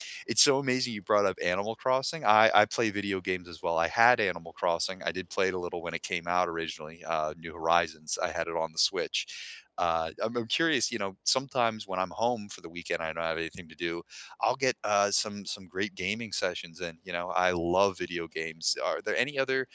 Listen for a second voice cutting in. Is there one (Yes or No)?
No